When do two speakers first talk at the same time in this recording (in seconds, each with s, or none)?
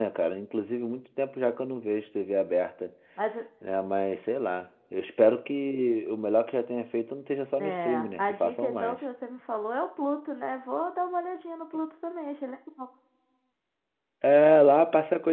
7.6 s